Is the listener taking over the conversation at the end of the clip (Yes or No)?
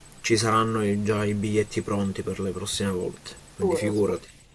Yes